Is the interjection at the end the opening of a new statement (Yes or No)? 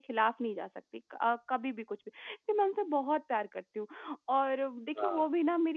No